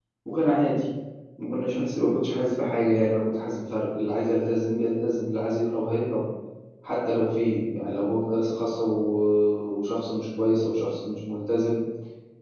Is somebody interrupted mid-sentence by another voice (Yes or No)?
No